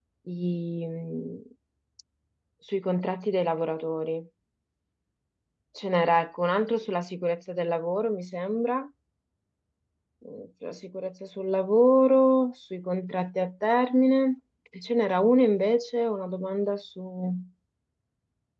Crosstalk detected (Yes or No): No